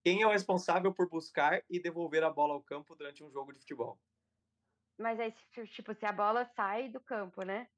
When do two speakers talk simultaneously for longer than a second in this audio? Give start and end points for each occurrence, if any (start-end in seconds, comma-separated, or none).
none